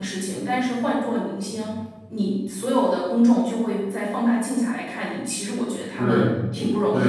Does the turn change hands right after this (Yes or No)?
Yes